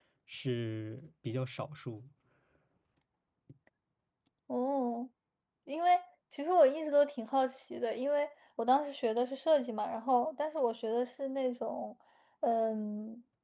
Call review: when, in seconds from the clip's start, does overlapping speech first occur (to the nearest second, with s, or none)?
none